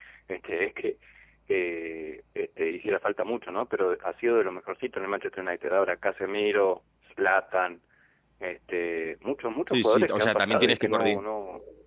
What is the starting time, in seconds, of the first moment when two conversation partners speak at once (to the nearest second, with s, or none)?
10 s